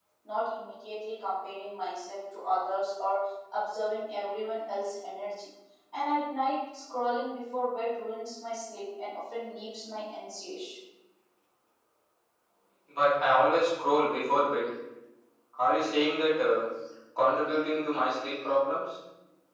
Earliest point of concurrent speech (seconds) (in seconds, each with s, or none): none